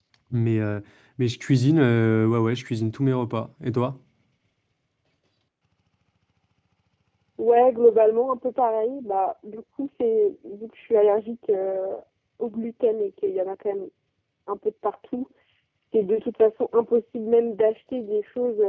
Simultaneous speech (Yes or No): No